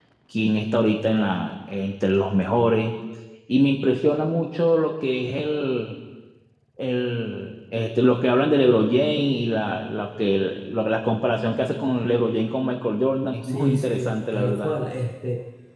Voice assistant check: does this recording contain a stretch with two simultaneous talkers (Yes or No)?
Yes